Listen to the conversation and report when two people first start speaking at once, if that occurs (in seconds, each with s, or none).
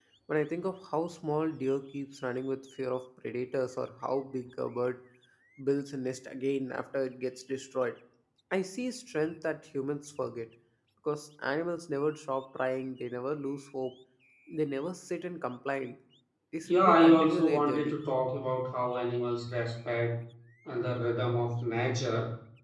16.6 s